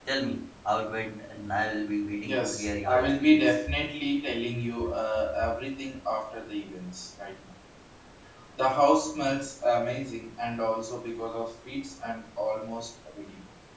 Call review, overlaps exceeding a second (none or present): present